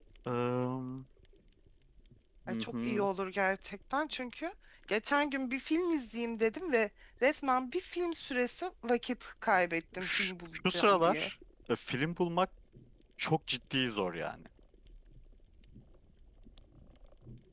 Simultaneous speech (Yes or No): Yes